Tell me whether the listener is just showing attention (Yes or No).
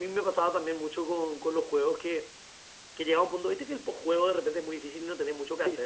No